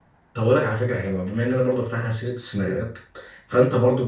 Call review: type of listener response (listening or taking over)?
listening